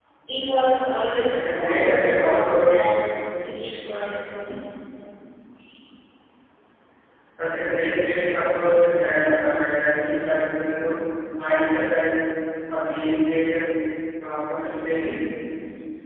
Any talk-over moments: Yes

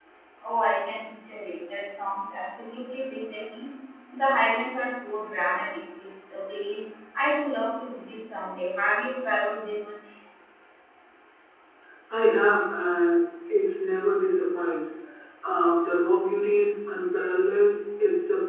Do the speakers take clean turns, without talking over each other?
Yes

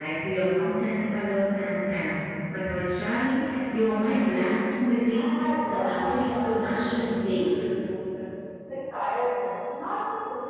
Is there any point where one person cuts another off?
Yes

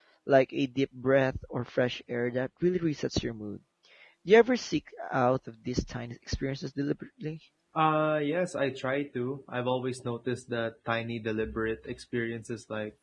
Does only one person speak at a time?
Yes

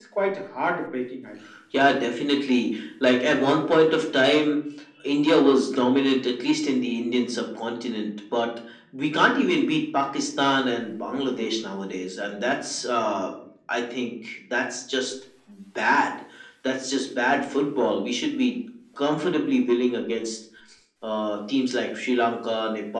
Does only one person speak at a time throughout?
Yes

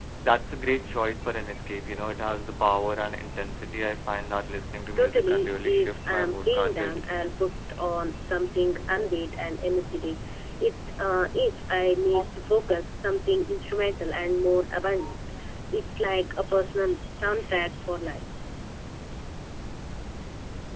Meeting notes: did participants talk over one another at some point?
Yes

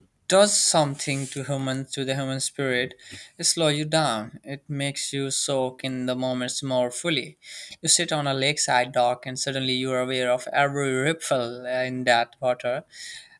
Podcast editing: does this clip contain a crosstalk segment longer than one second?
No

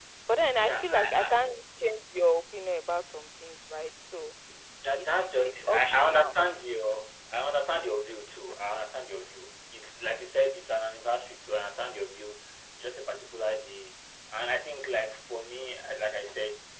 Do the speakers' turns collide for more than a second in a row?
Yes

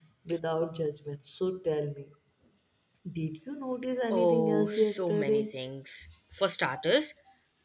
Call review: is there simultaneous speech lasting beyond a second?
Yes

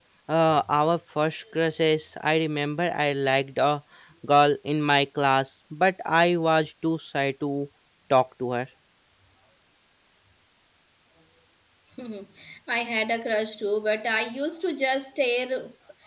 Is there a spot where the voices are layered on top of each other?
No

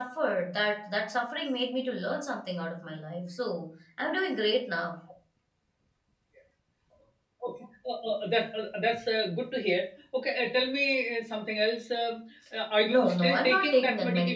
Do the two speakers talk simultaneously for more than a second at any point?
Yes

